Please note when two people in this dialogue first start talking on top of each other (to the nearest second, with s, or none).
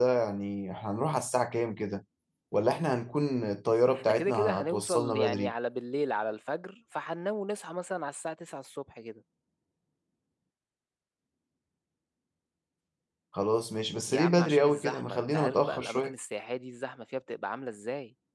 4 s